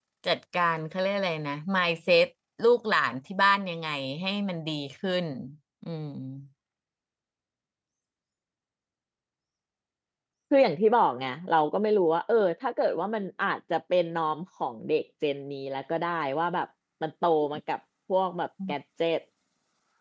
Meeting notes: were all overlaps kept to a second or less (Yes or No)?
Yes